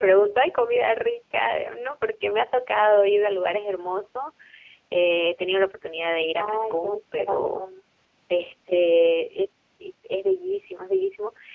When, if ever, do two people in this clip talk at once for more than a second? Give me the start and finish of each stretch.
6.4-7.6

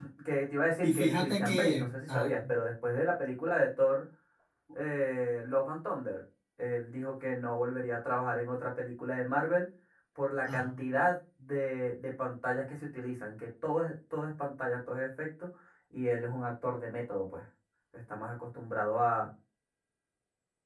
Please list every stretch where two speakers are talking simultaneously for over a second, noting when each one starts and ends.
0.8-2.4

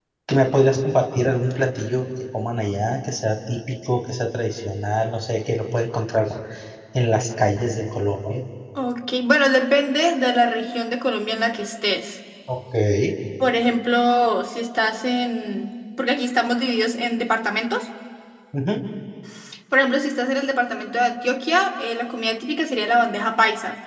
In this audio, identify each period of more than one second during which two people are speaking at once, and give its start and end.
none

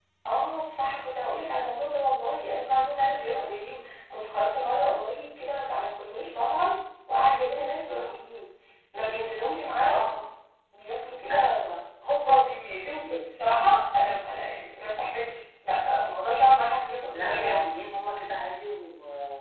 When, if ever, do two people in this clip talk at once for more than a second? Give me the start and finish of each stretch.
none

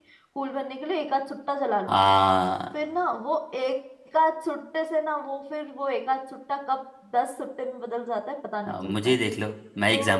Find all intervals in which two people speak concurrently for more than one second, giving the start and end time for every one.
none

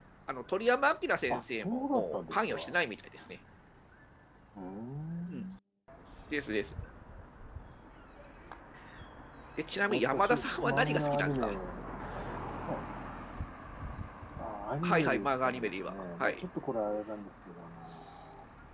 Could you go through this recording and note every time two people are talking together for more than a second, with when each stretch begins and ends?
1.3-2.8, 9.9-11.5, 14.8-16.4

